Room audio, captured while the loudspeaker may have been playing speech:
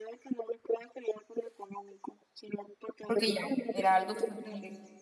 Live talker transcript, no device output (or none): porque ya era algo terrible.